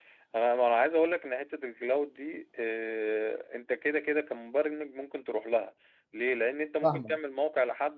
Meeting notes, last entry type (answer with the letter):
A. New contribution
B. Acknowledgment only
B